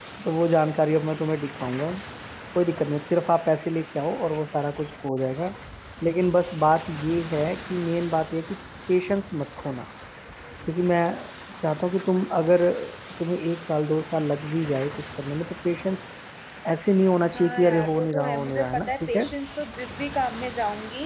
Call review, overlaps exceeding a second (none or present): present